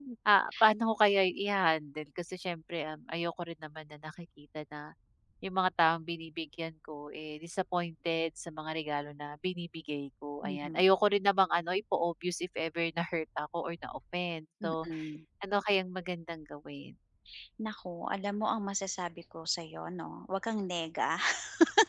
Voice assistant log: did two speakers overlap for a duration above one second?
No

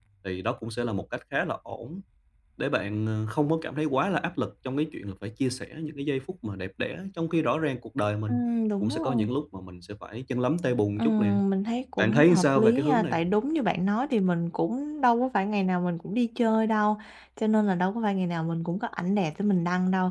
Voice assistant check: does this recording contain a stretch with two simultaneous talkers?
Yes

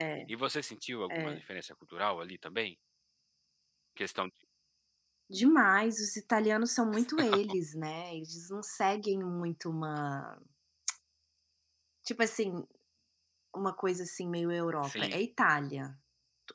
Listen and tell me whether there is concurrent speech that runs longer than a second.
No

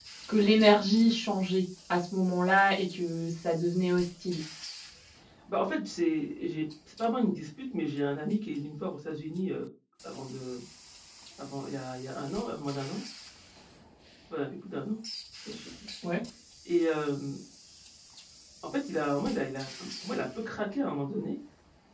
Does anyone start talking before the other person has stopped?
No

